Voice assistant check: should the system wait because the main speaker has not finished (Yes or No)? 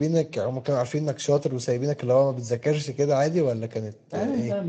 No